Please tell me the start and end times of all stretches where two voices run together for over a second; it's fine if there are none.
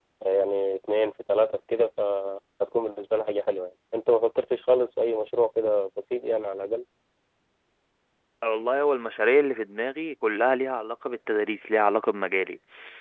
none

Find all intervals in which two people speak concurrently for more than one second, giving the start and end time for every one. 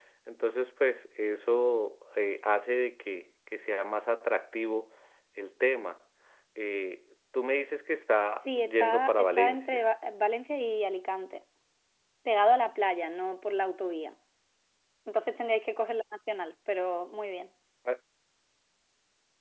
8.4-9.8

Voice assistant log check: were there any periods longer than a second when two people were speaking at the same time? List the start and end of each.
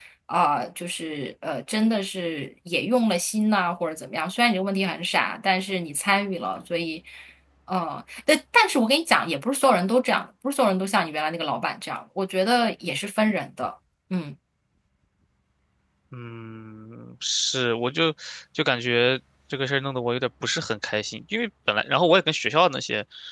none

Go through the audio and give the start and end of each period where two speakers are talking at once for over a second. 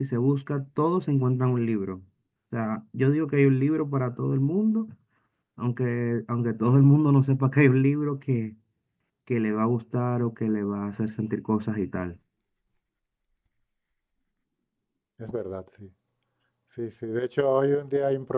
none

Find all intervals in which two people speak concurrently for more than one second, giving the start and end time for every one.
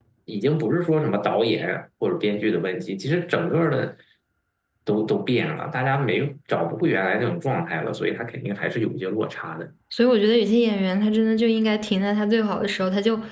none

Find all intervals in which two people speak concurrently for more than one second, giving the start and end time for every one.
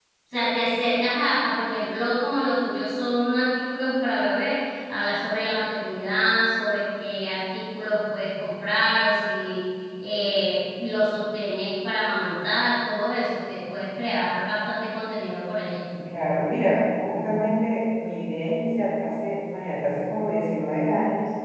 none

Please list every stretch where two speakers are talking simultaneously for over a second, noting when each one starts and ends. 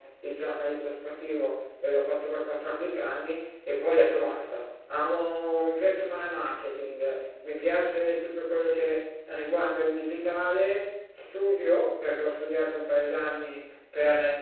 none

